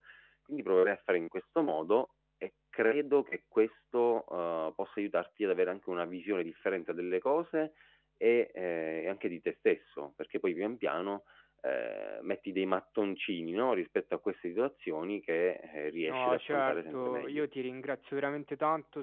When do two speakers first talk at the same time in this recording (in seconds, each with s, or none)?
16.1 s